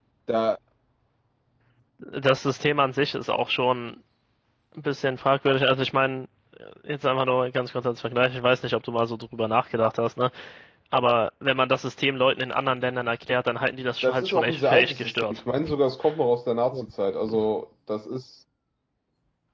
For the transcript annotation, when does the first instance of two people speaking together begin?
14.0 s

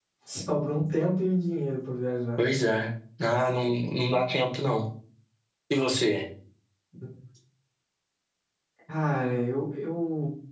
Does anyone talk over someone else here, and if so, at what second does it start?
none

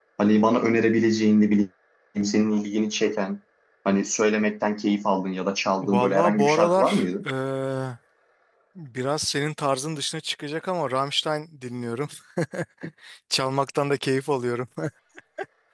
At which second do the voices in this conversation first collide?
5.8 s

